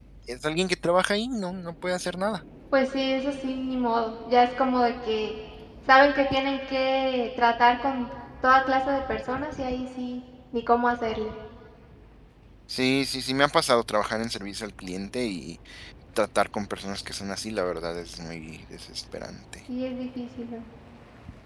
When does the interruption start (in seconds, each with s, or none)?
none